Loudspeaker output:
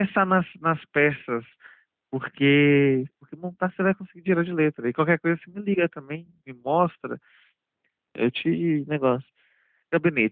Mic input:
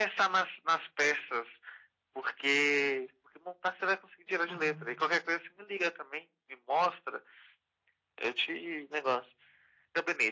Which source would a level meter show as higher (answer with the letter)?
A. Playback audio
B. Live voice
A